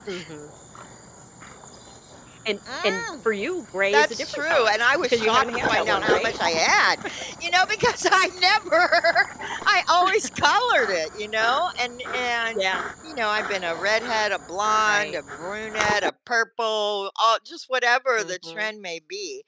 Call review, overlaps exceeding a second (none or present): present